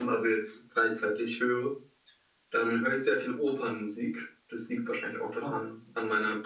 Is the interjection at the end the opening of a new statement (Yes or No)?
No